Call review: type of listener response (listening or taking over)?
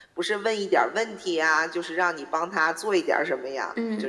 taking over